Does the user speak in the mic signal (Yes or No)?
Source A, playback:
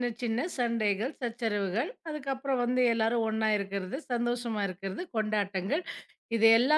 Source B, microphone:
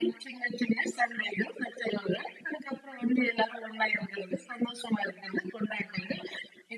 No